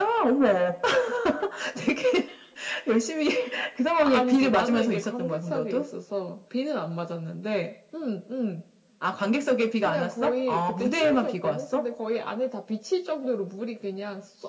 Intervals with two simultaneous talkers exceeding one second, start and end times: 4.0-5.8, 9.8-11.9

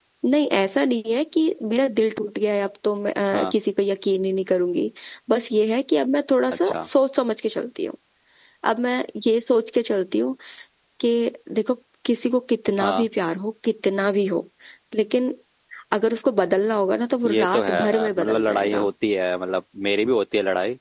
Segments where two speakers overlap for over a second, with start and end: 17.3-18.9

